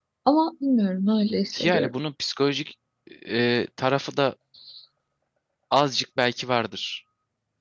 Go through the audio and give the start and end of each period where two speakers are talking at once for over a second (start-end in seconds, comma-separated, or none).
none